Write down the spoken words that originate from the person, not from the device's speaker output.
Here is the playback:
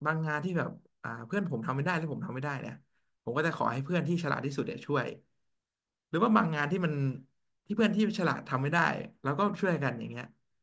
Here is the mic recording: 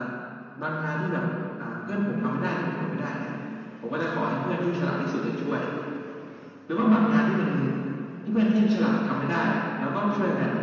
none

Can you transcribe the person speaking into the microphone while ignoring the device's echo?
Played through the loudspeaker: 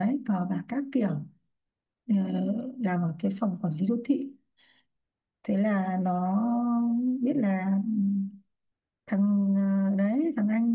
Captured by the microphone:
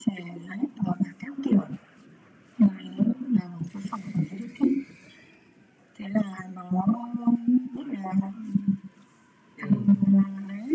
ừ

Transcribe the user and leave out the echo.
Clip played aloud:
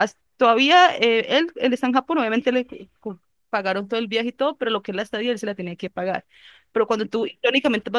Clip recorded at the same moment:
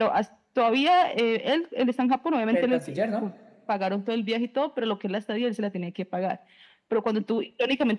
el canciller, ¿no?

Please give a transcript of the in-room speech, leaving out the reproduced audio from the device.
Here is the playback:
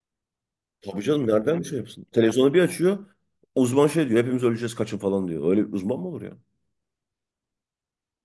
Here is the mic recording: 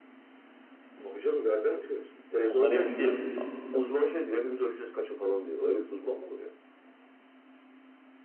Ondan emin değilim. A-

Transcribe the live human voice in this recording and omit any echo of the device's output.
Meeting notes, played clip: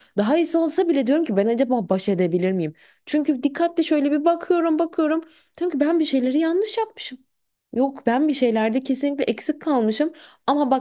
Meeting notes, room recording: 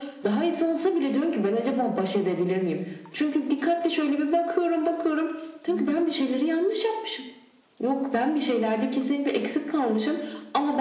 hı hı.

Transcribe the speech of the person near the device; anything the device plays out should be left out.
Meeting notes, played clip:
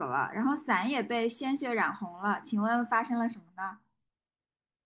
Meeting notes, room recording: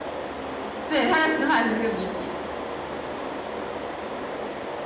对，他的死法是这个谜底，

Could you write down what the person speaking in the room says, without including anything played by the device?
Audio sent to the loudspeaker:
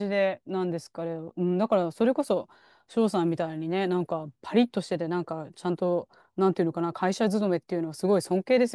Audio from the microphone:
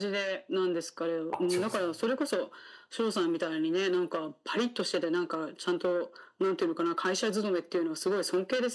あ、違うんですか。

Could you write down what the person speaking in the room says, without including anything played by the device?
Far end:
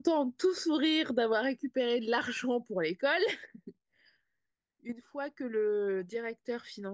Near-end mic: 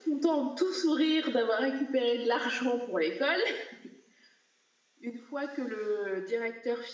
none

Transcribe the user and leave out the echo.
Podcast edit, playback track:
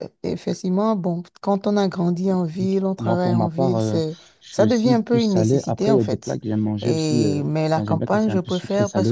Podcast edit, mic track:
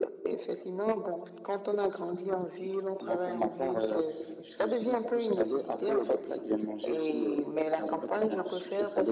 none

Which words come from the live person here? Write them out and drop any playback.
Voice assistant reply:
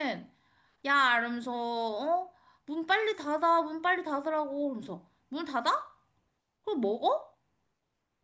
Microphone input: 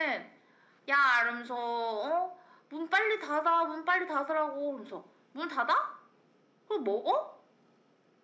none

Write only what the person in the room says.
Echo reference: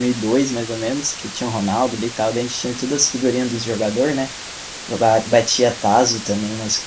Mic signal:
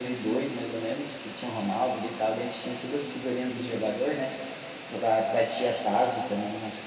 none

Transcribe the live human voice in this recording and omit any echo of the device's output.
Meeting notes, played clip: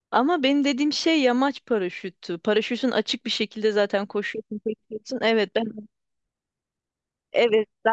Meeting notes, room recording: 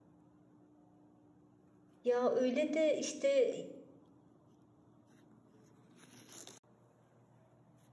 ya öyle de işte

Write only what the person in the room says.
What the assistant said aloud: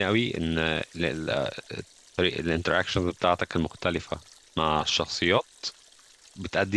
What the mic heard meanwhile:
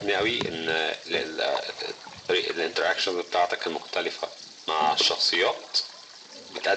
none

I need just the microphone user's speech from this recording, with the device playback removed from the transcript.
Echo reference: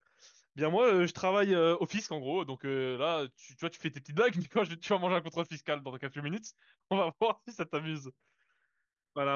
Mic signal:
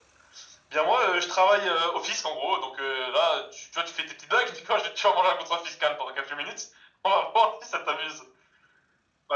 none

